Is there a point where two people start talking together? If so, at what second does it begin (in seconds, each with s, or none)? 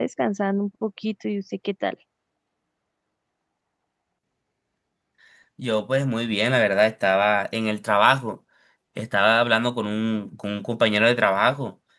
none